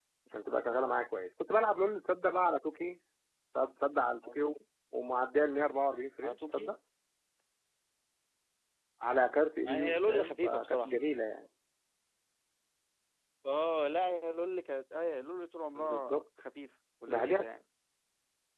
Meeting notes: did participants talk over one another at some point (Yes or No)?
Yes